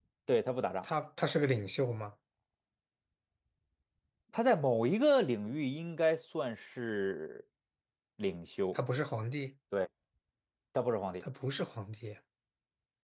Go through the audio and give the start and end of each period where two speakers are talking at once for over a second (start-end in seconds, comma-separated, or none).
none